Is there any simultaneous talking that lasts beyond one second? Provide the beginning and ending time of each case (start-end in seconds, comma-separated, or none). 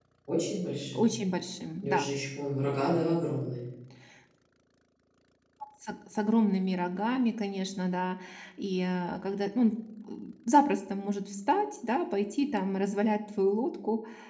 none